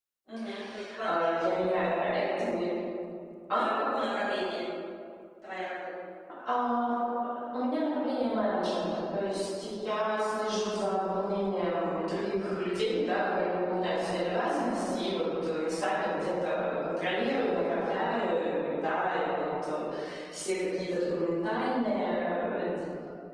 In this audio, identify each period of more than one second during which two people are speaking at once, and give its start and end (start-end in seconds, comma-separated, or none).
none